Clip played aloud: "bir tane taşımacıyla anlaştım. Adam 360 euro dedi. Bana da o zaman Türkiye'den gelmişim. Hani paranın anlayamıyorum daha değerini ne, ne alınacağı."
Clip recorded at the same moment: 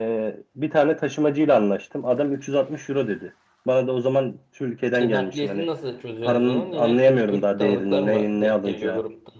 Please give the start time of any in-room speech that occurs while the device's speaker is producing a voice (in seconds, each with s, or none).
5.0 s